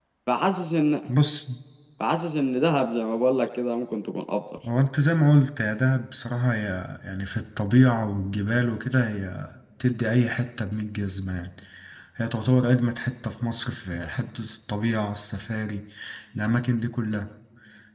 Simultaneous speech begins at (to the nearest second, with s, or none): none